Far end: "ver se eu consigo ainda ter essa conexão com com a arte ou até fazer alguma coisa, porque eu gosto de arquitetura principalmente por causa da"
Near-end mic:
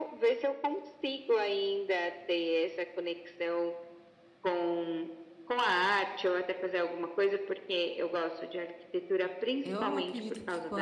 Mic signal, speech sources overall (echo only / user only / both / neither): both